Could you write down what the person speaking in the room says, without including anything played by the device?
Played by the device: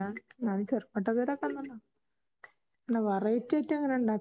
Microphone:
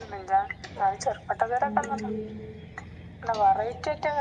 രണ്ട് ഉള്ളീ

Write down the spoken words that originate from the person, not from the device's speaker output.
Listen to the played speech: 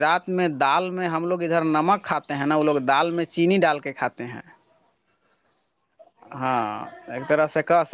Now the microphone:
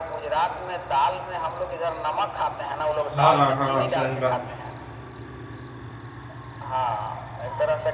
ہاں- ہاں صحیح بات

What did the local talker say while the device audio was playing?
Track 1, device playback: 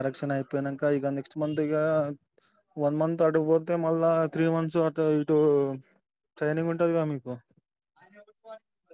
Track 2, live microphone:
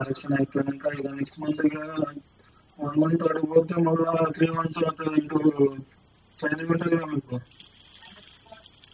none

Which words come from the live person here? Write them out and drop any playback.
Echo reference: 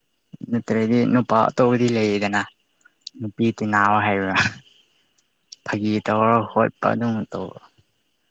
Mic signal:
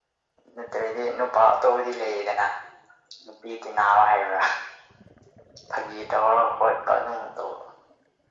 none

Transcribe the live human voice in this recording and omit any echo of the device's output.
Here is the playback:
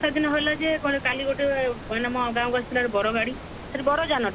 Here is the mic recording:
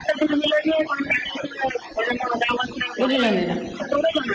ବୁଝିଛନ୍ତି ନା

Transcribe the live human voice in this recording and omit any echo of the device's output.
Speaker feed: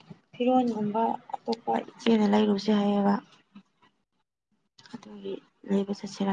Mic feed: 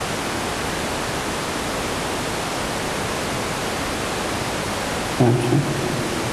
ꯑꯆꯥ

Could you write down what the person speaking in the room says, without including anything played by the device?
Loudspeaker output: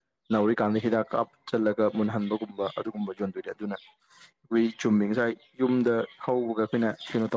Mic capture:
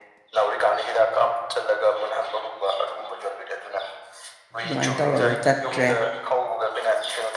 ꯑꯗꯨꯃꯥꯏꯅ ꯇꯧꯔꯒ ꯆꯠꯇ꯭ꯔꯦ

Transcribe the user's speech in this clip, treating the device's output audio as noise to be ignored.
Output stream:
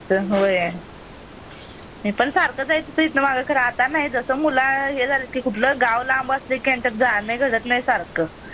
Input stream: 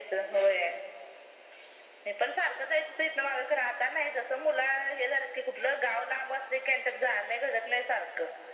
none

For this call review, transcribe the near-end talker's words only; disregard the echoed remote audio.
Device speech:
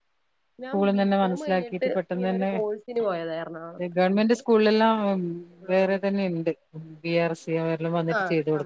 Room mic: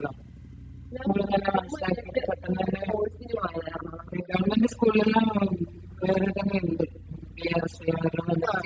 none

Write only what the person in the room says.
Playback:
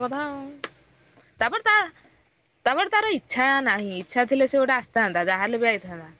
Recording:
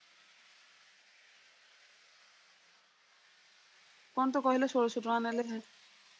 କଣ ତୁ କହିଲୁ ଷୋହଳଶହ ଟଙ୍କା ନେଲେ ହେ

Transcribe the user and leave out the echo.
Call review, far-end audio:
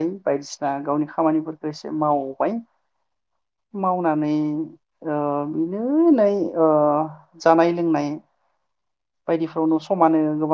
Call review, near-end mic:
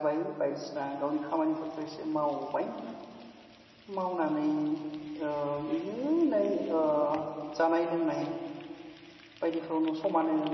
none

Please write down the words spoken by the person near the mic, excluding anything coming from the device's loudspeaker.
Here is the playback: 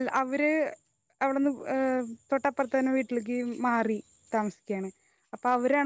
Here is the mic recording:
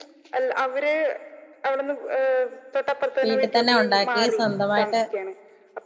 വീട്ടിത്തന്നെ ഒണ്ടാക്കി സ്വന്തമായിട്ട്

